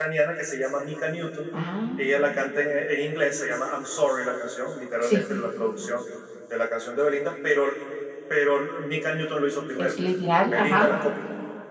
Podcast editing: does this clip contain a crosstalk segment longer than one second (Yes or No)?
No